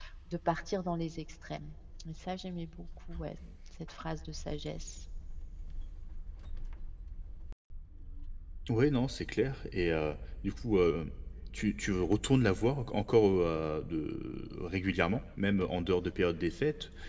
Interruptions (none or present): none